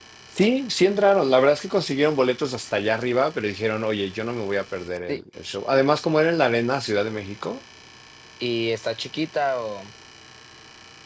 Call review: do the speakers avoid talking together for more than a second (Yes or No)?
Yes